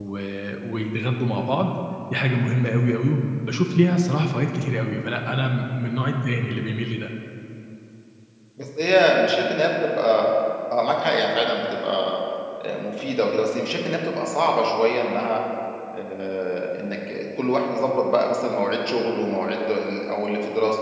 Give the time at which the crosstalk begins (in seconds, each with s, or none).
none